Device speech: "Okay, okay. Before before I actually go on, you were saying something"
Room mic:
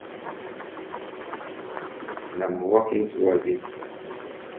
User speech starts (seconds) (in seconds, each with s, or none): 2.3 s